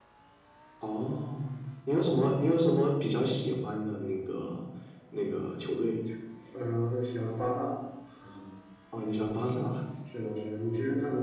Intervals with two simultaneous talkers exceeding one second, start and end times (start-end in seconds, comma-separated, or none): none